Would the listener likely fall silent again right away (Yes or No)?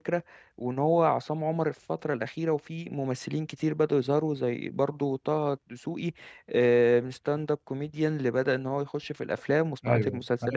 No